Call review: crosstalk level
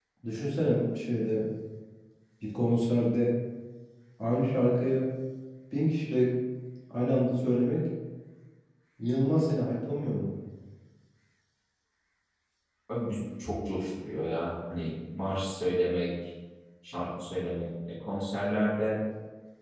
none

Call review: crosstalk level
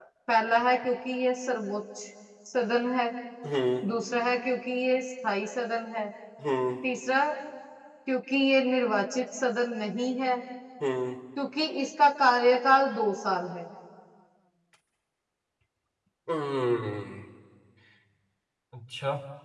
none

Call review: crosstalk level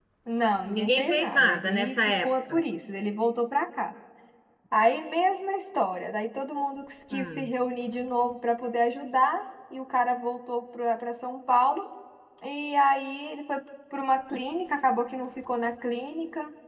present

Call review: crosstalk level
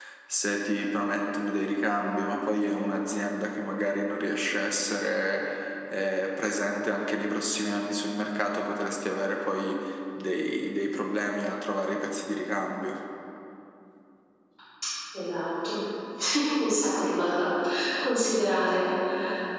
none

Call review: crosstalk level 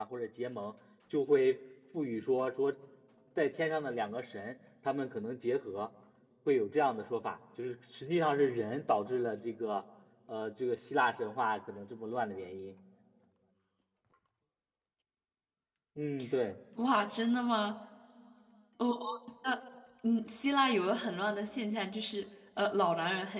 none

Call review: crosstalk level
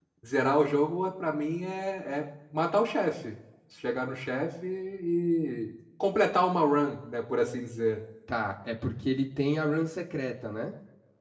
none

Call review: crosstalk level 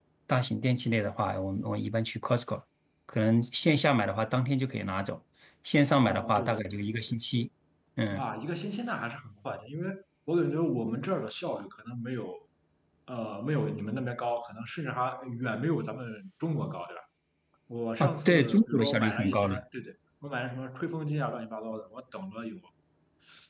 present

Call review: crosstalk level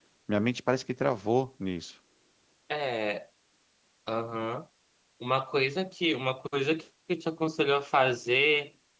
none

